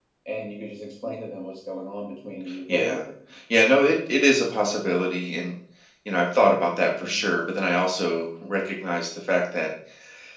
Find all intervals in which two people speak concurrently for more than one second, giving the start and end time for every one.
none

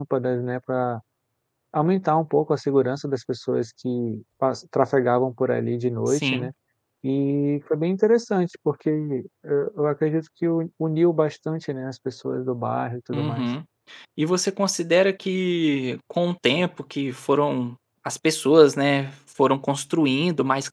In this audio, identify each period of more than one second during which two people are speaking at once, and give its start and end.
none

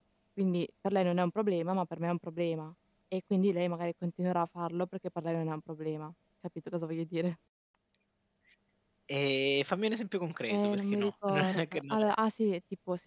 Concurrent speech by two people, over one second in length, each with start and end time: 10.5-12.1

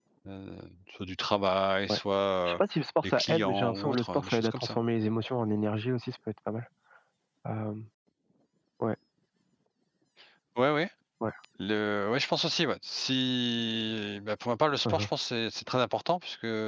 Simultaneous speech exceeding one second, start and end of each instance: 3.0-4.8

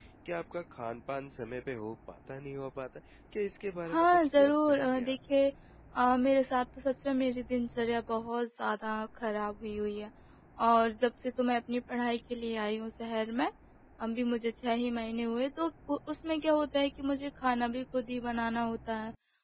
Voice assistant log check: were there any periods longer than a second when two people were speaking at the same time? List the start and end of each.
3.9-5.2

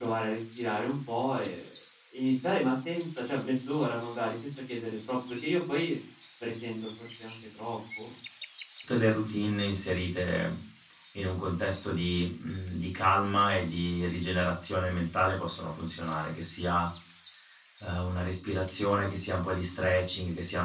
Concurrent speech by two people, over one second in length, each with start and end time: none

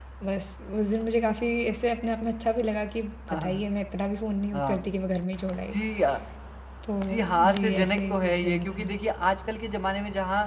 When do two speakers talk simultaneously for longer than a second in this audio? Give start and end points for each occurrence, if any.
7.3-8.8

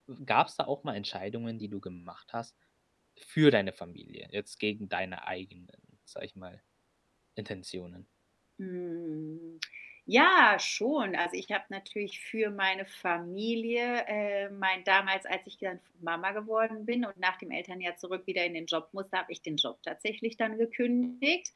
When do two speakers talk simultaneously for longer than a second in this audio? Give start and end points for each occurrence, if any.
none

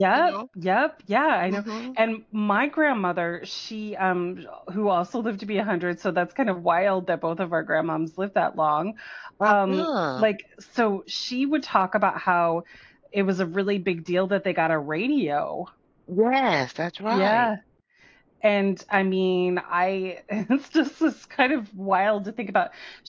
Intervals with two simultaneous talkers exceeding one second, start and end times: none

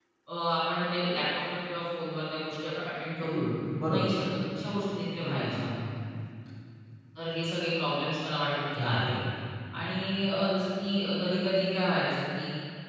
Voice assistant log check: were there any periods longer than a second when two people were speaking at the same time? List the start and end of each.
none

